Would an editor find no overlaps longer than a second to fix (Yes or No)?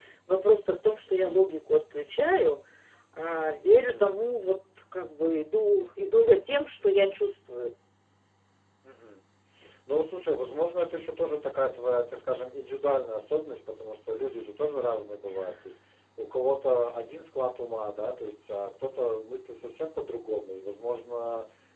Yes